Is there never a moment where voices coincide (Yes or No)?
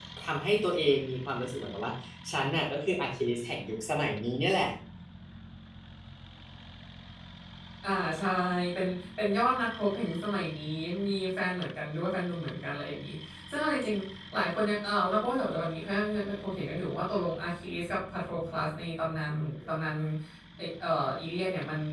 Yes